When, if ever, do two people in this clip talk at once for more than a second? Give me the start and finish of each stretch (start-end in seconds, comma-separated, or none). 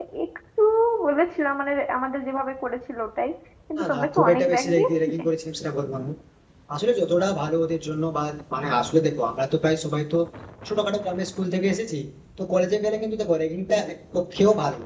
3.8-5.2